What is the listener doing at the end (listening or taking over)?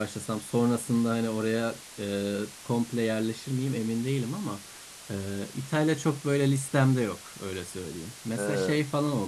listening